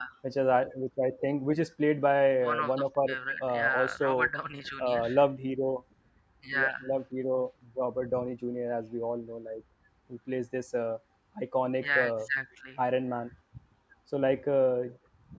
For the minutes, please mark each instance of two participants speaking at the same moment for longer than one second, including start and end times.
2.4-4.3

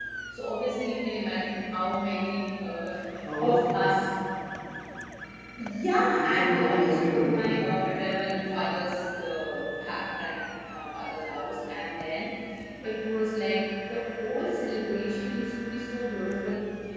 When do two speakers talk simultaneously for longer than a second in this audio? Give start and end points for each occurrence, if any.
6.2-7.5

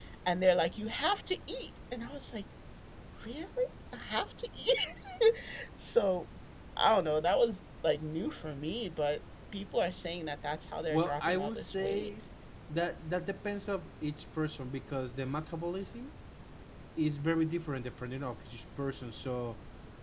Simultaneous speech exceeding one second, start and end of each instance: 10.9-12.1

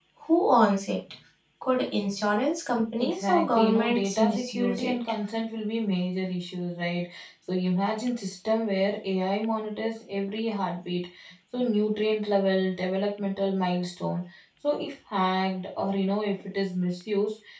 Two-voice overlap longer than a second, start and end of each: 3.0-5.0

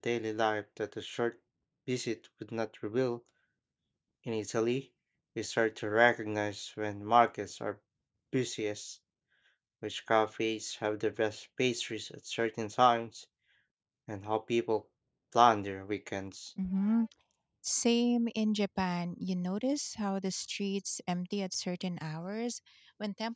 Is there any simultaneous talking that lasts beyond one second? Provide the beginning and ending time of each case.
none

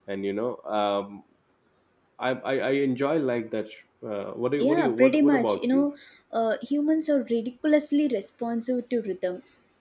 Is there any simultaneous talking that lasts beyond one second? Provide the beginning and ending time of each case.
4.6-5.8

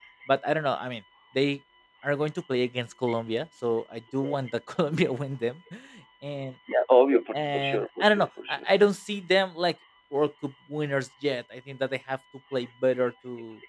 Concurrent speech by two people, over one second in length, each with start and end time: 7.3-8.7

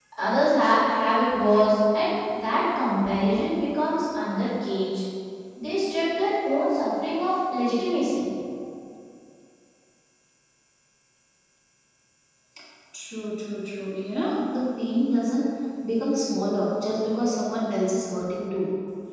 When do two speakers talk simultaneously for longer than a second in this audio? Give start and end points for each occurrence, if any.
none

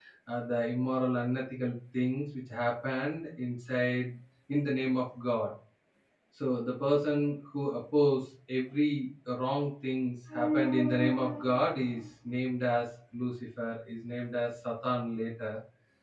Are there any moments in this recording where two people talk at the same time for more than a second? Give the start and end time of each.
none

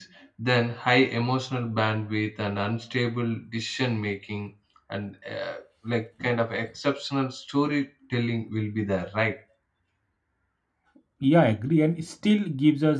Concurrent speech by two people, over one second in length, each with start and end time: none

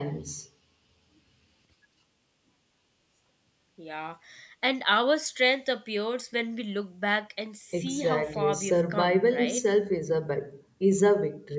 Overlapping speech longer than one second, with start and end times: 7.7-9.6

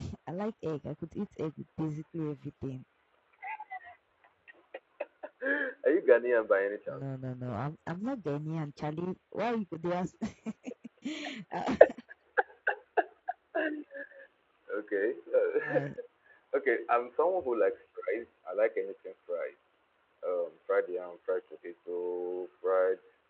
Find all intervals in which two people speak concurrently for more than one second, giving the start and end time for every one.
none

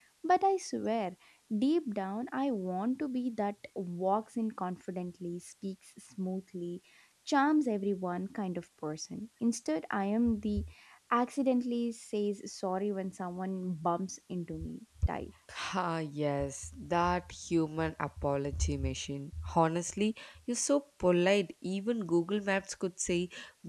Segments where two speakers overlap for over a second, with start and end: none

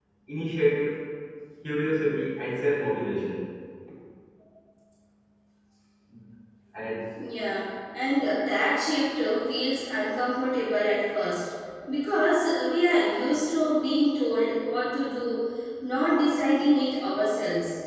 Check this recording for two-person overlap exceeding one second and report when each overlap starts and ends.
none

